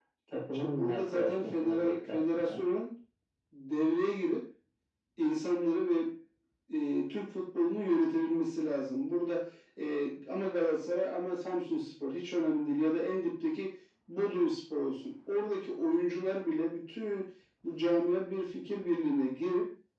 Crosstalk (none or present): present